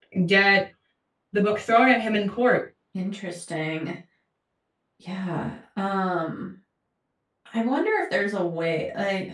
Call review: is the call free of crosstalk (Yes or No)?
Yes